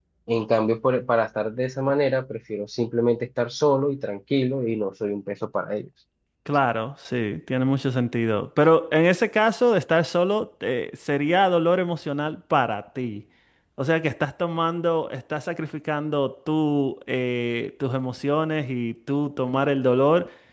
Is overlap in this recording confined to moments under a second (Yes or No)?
Yes